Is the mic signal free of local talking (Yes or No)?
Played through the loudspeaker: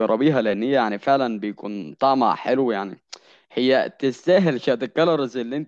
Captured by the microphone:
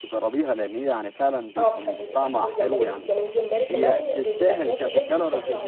No